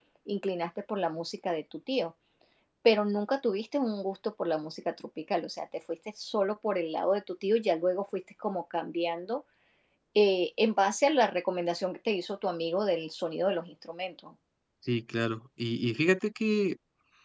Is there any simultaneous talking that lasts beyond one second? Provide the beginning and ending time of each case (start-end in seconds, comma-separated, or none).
none